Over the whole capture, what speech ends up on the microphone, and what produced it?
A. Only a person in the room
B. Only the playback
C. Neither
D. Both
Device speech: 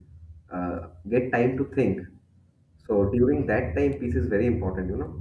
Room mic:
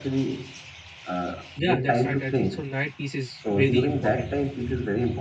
D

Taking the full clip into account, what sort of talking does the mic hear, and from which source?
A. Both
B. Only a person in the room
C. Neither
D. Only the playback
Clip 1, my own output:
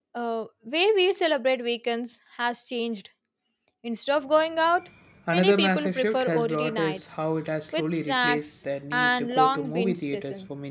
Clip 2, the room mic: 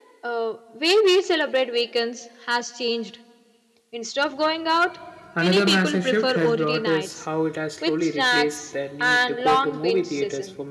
D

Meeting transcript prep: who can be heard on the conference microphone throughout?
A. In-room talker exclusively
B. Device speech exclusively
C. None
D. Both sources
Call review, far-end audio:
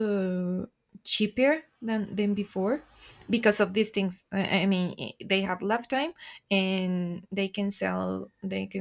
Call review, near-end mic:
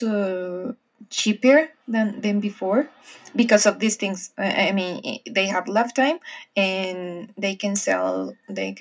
B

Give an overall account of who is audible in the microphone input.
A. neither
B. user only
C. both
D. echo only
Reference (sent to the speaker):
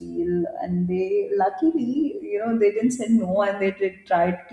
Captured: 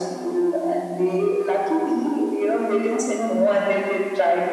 D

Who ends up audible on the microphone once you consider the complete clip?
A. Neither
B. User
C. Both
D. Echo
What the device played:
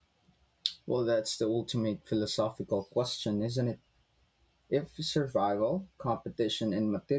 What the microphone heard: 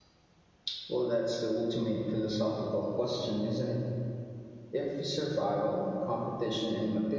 D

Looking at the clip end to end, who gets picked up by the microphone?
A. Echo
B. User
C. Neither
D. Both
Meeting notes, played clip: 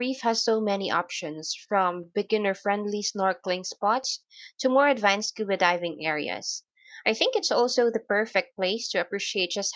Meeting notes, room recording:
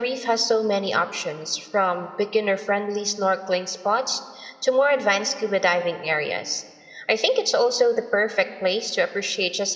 A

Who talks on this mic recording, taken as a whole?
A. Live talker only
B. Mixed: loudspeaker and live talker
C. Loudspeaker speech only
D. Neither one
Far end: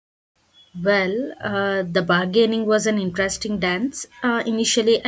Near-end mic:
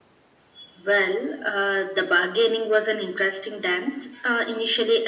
C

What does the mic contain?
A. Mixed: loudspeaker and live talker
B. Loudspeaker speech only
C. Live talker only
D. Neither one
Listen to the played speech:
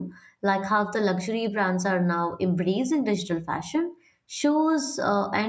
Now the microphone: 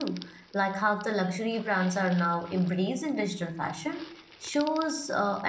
B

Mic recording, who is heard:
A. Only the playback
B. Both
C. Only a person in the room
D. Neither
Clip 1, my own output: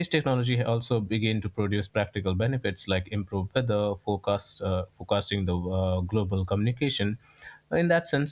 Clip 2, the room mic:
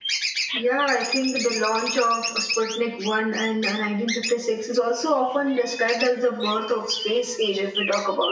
C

